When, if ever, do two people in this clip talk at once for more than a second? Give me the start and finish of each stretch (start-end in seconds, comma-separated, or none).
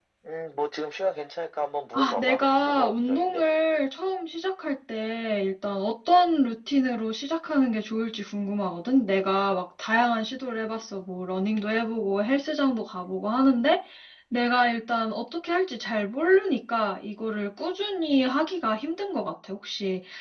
1.9-3.4